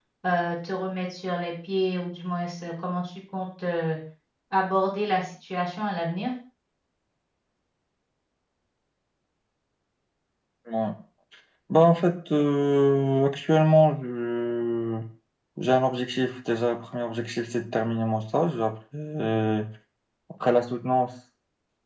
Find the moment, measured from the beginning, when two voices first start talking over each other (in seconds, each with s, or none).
none